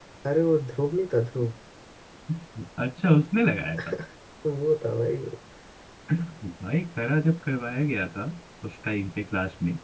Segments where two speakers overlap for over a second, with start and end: none

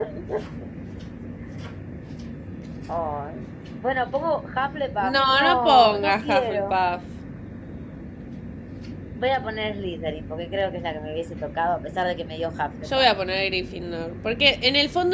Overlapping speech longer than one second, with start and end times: 5.2-6.8

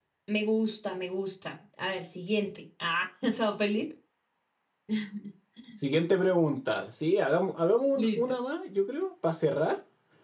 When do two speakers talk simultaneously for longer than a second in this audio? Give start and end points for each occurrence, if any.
none

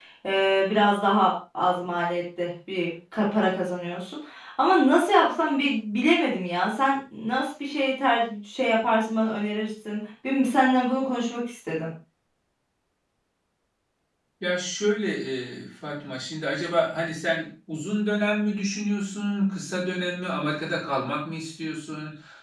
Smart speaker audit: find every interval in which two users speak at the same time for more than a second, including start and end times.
none

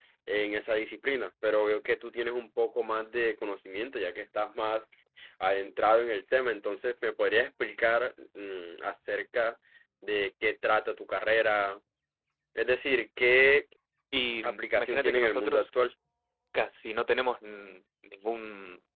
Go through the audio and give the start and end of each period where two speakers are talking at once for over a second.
14.4-15.7

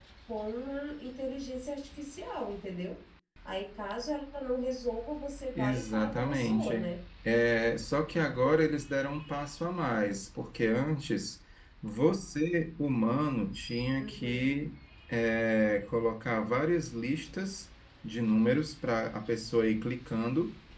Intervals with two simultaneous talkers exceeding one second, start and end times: 5.5-6.9

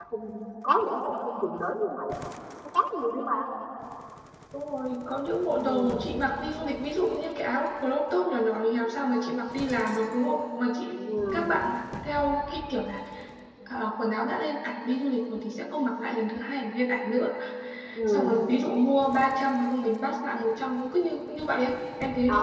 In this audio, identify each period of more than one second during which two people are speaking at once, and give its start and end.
none

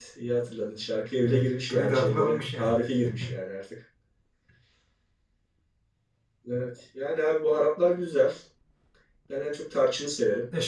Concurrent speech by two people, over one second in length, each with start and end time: 1.2-2.8

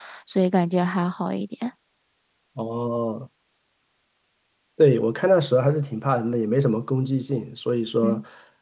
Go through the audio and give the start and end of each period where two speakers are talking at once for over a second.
none

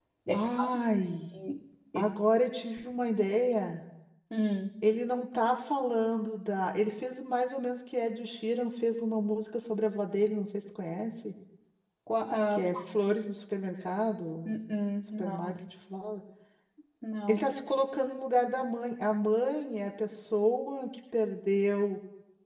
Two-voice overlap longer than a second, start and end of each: none

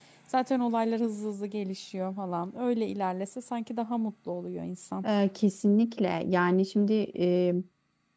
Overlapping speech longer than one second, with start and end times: none

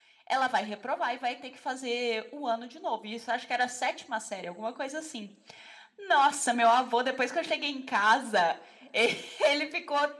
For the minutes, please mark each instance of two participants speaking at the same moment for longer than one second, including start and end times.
none

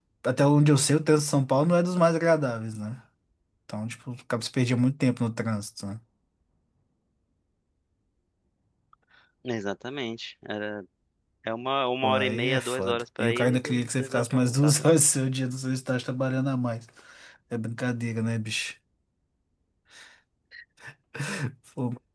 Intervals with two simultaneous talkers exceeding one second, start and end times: 12.0-14.9

